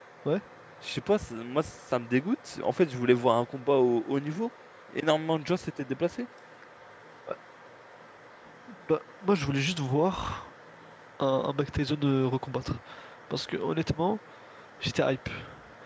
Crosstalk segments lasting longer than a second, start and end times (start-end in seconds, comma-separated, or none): none